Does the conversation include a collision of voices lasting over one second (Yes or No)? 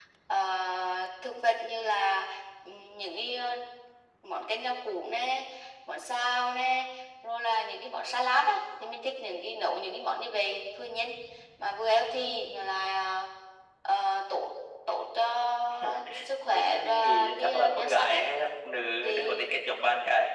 Yes